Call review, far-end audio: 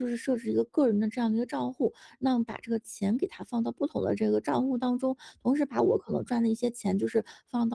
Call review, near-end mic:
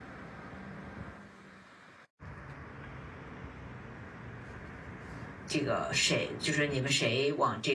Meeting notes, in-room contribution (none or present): present